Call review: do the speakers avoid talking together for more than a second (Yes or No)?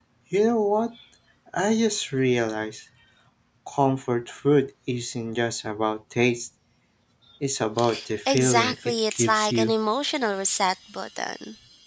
No